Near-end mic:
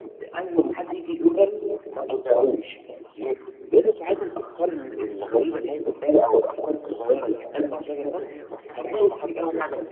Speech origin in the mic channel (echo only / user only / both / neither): both